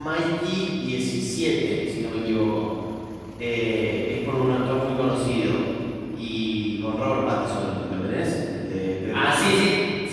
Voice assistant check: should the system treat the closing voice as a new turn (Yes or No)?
Yes